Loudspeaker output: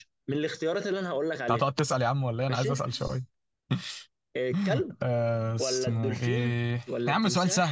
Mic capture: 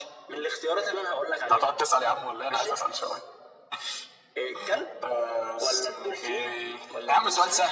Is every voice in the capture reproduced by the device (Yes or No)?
Yes